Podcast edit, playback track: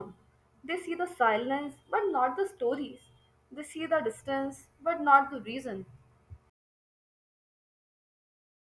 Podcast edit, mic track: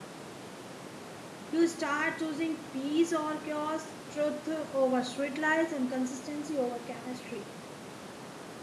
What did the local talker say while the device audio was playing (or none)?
You start choosing peace or chaos, truth over sweet lies, and consistency over chemistry.